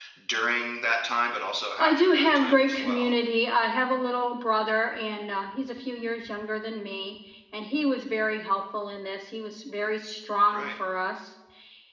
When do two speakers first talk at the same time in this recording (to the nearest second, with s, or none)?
2 s